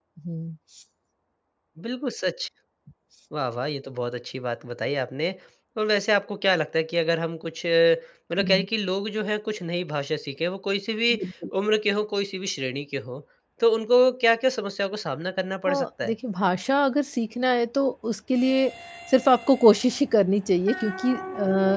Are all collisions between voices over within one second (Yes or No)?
Yes